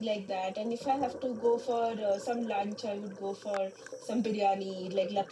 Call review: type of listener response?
listening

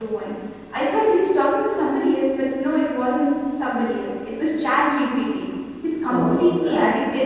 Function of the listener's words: listening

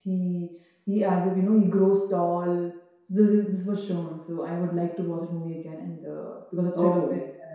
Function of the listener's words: listening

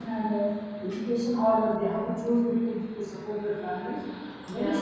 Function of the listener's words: listening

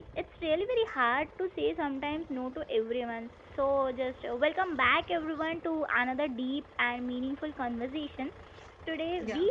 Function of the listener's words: listening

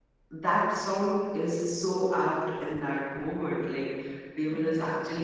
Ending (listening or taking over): listening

